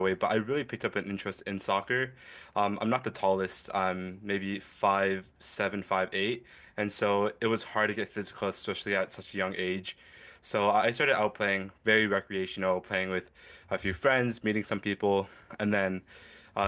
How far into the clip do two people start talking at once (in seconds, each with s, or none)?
none